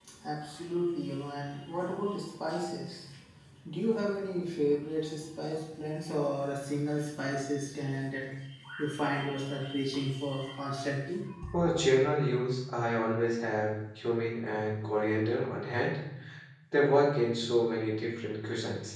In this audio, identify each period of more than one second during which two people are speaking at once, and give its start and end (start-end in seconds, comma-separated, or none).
none